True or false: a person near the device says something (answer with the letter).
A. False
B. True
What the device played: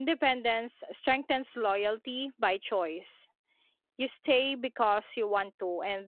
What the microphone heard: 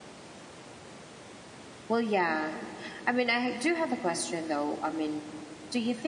B